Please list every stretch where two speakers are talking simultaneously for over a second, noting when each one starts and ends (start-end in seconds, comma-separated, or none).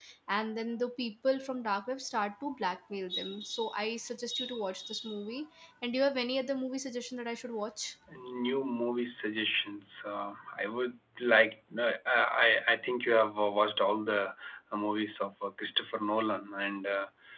none